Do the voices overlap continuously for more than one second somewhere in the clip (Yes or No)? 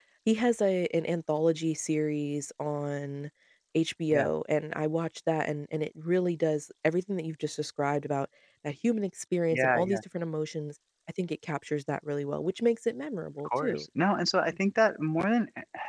No